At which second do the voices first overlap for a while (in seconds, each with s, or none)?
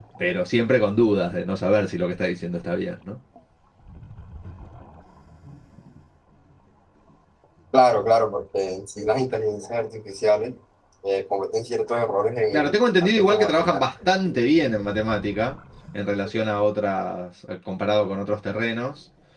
12.5 s